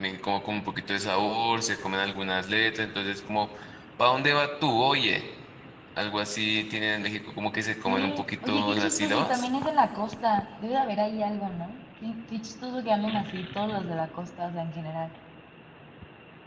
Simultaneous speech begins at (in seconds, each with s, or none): 7.8 s